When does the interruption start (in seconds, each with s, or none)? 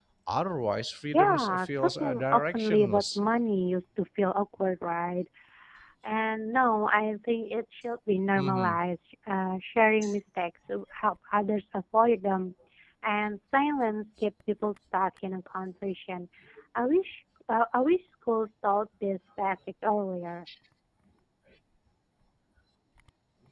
1.1 s